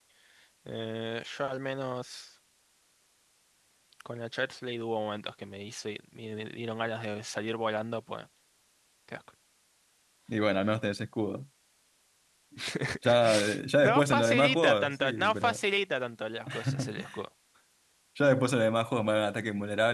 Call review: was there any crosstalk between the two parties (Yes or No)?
Yes